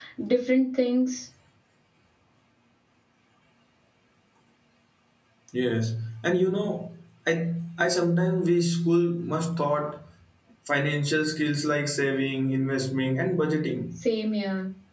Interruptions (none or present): none